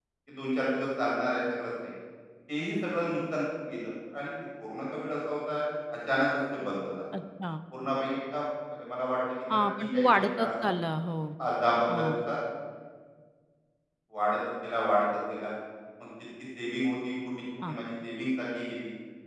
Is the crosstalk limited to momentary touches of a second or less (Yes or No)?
No